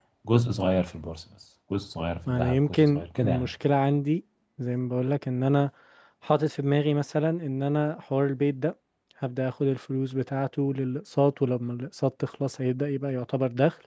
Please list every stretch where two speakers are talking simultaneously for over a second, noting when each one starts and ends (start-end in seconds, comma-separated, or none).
2.3-3.5